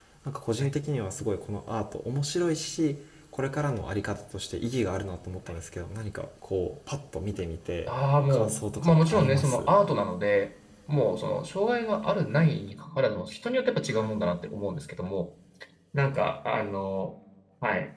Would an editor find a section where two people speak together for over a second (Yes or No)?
Yes